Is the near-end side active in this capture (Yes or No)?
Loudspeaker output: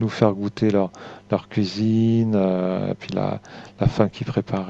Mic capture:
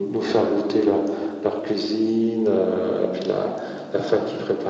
No